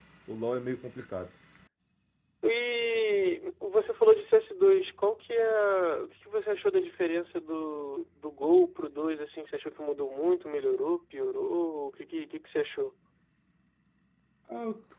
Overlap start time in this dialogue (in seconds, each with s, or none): none